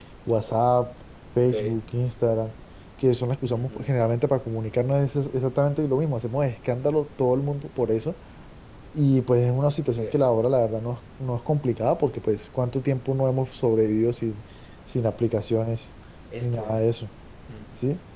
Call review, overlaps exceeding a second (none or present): none